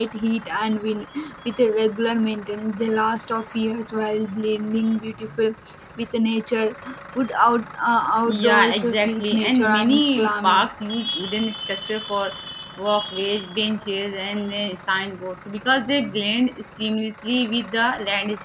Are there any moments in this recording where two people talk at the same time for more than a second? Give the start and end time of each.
8.3-10.7

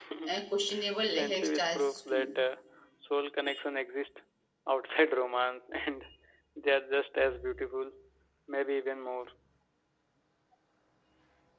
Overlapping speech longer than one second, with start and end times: 1.1-2.4

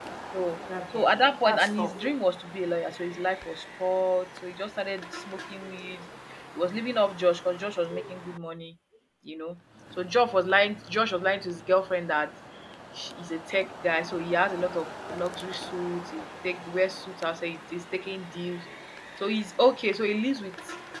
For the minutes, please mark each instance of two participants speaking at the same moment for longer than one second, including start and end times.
0.9-2.2

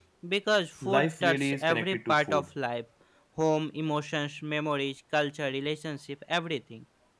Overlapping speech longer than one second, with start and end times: 0.8-2.5

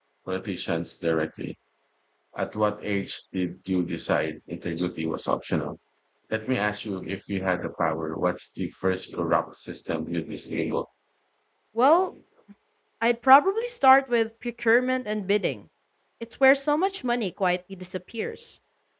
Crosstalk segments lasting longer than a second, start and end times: none

